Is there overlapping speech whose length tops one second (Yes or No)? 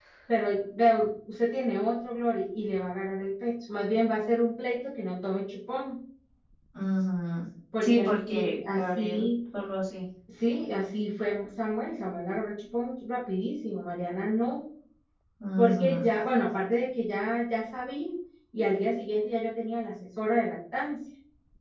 Yes